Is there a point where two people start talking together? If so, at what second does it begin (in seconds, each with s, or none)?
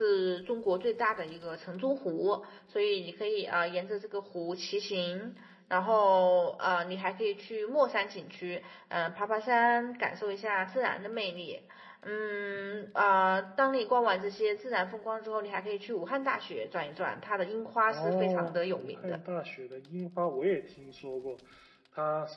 17.9 s